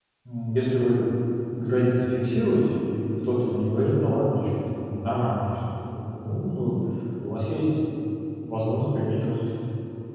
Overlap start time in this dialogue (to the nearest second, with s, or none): none